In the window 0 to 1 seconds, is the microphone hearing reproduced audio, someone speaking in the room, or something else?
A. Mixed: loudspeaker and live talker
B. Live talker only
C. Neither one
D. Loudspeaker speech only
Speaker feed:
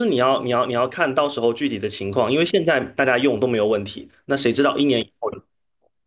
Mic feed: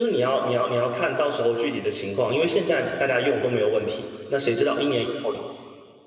D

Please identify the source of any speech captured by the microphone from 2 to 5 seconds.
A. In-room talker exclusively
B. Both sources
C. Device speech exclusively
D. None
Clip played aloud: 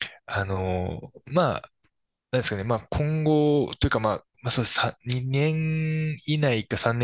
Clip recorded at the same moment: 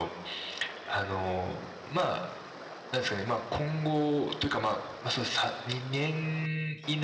C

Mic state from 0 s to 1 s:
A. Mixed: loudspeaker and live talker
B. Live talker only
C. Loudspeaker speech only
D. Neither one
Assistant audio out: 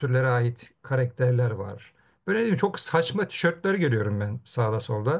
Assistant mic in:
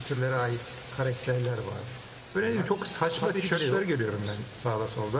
C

